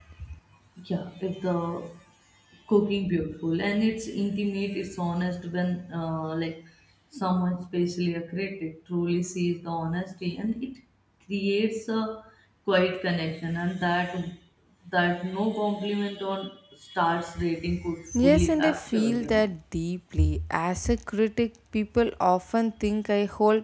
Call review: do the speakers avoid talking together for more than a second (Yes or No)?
No